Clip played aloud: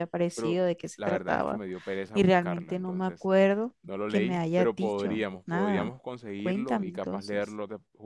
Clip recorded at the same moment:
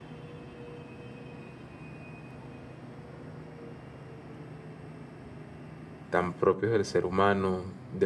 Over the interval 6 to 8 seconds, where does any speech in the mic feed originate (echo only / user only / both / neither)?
user only